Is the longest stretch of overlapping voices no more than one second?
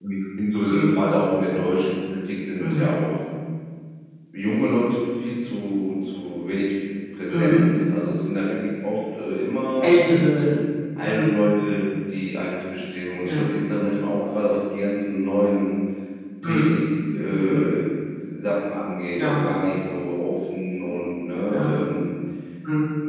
Yes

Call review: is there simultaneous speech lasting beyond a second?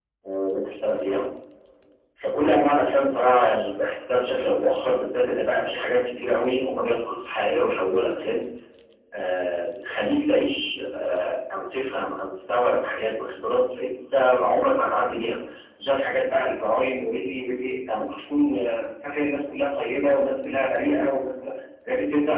No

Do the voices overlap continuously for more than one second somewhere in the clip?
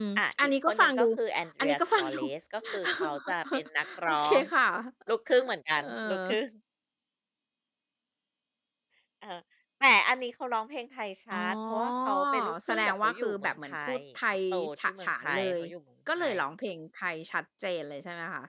Yes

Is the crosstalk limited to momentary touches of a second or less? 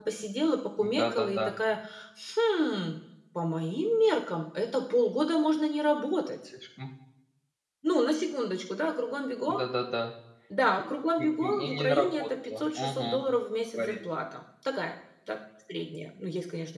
No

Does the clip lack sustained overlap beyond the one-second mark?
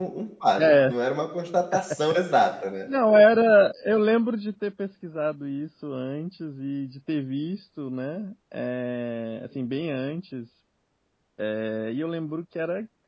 Yes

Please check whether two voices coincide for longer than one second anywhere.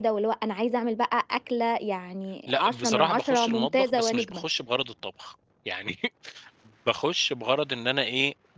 Yes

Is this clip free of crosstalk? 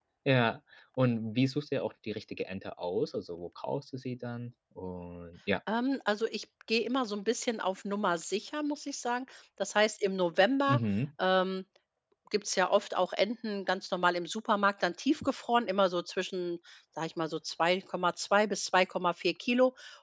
Yes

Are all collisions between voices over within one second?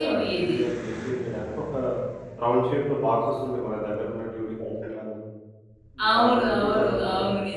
No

